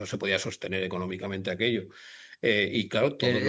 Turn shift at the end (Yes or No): Yes